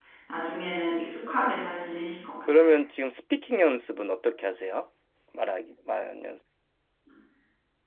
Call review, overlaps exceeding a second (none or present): none